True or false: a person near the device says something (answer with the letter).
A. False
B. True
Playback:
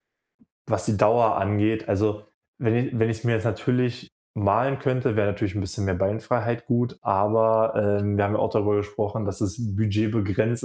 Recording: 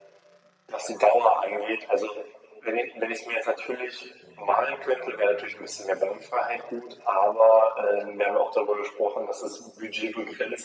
A